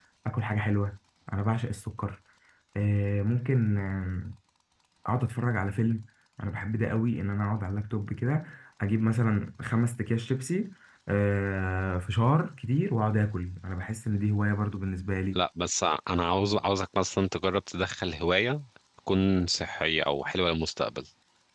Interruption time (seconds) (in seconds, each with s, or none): none